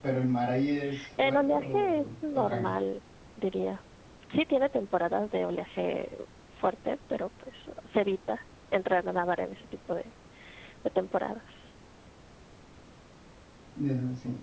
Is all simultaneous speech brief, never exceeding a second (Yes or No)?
No